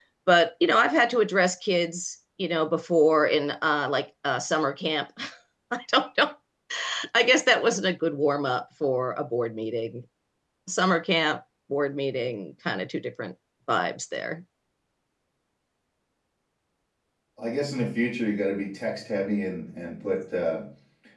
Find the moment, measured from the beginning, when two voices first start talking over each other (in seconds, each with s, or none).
none